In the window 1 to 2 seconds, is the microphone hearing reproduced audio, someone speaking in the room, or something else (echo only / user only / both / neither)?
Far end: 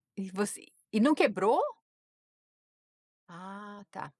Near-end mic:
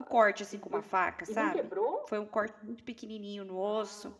both